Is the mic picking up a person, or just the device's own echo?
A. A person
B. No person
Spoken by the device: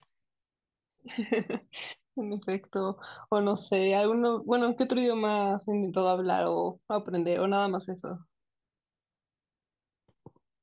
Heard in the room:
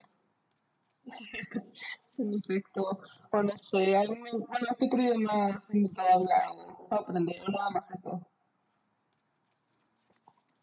B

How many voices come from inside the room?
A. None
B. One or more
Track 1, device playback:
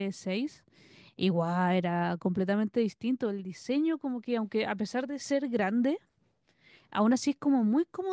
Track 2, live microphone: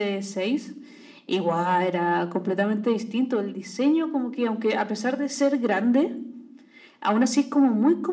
A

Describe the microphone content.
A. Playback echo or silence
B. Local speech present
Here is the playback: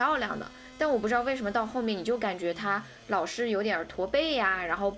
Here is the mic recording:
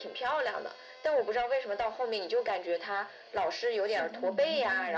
B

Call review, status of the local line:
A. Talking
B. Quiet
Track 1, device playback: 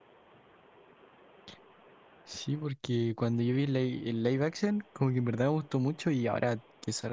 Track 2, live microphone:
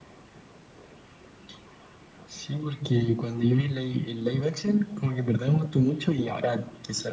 B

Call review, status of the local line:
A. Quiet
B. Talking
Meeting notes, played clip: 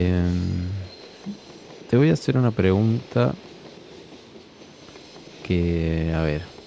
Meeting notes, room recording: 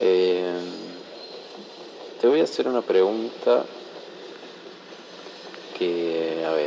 A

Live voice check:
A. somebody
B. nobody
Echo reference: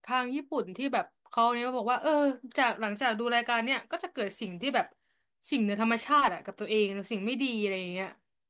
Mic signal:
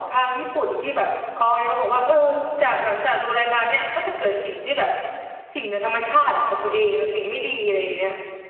B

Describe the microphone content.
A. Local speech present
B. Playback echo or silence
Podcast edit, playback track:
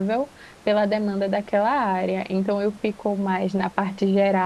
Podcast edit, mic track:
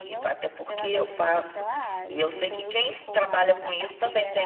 A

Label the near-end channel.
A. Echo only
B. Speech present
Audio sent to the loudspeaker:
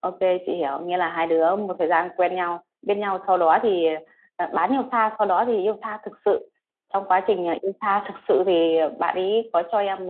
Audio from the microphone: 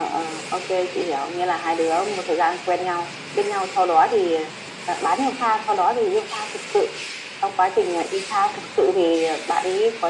A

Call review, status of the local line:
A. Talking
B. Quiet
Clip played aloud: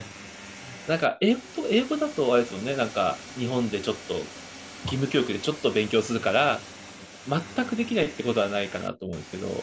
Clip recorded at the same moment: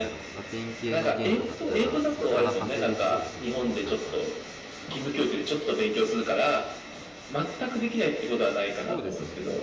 A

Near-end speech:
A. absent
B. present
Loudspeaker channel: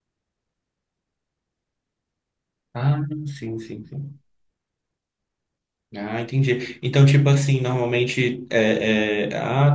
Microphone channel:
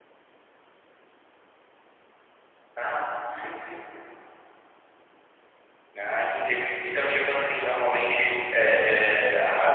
A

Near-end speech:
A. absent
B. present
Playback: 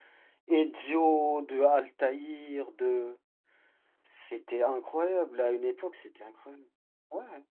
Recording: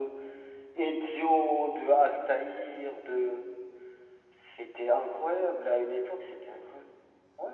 A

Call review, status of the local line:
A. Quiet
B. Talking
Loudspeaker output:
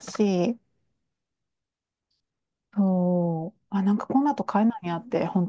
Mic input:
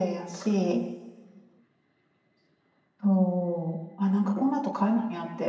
A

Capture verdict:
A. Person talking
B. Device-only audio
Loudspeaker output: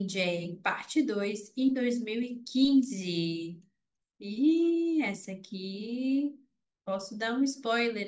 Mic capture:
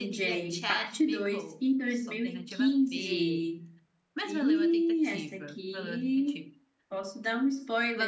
A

